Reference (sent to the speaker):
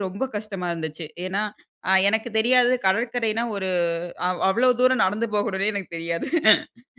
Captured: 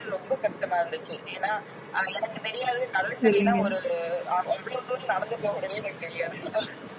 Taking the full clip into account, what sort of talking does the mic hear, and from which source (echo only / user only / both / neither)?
both